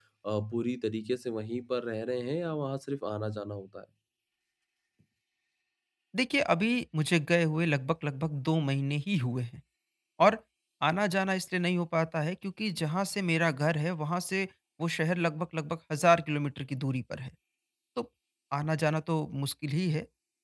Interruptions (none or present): none